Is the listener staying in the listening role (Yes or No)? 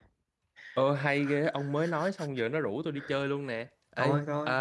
Yes